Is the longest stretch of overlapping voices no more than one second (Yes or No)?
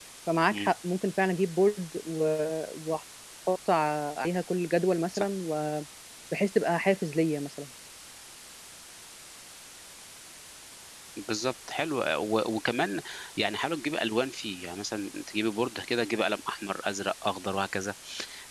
Yes